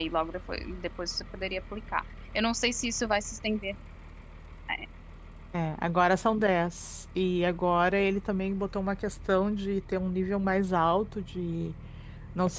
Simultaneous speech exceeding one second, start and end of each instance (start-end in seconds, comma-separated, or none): none